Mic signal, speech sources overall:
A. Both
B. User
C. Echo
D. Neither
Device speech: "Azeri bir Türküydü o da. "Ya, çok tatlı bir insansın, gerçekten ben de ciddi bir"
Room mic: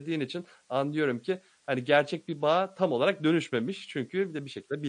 B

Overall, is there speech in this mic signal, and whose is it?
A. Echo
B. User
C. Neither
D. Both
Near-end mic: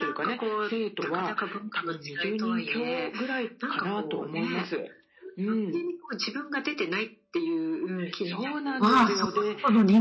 D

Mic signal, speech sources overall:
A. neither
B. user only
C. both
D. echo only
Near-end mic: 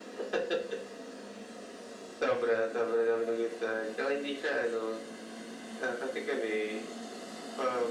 D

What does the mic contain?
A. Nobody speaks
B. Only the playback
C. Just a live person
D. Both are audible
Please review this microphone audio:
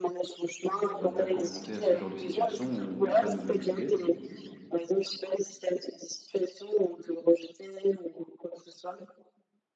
D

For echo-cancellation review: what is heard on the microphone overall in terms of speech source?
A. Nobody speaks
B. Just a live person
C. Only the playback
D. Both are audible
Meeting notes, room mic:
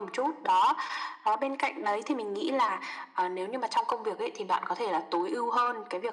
C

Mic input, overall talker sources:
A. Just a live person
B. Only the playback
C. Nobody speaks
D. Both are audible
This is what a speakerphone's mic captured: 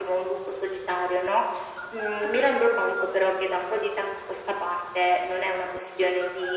B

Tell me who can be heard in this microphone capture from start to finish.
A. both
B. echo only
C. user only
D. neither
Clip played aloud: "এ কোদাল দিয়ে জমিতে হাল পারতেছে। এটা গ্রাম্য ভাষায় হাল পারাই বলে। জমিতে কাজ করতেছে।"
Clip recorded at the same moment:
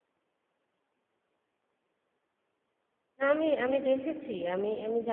C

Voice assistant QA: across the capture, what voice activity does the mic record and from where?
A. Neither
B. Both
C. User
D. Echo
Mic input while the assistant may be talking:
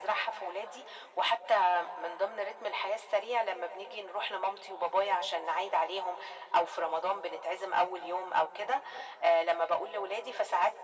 D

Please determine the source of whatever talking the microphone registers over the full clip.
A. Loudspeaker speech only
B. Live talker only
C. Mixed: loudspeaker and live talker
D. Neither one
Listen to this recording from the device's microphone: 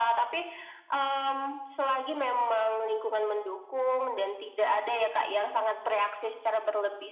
A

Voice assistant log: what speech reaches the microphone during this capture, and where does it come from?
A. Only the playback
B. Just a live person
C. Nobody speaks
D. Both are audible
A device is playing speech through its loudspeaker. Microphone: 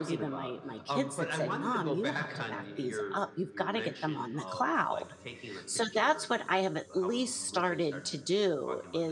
D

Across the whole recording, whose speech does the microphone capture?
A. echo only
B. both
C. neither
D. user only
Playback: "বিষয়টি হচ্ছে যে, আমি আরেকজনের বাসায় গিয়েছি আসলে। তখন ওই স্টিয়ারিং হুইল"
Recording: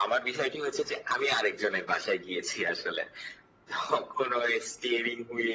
A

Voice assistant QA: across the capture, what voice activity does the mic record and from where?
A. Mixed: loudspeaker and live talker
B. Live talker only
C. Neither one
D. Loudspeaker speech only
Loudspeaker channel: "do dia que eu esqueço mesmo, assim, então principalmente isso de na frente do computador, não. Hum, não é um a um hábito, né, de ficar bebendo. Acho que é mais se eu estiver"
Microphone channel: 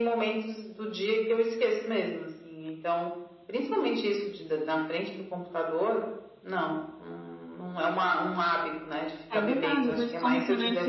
A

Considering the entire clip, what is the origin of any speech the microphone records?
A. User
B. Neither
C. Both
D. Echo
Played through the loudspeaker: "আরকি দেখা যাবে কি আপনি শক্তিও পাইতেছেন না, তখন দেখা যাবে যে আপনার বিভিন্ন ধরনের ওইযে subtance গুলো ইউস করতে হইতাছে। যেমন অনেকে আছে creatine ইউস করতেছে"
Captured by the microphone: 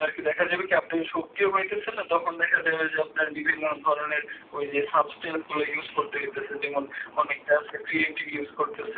D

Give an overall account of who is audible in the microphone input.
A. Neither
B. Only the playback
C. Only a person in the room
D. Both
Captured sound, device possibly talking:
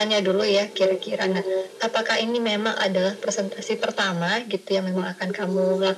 B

